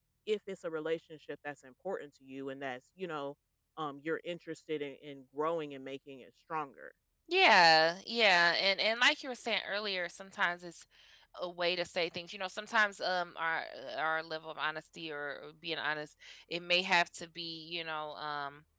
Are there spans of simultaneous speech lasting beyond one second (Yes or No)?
No